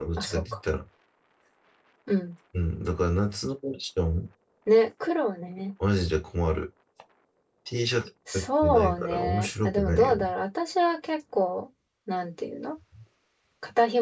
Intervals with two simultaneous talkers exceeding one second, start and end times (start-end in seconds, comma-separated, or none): 8.3-10.2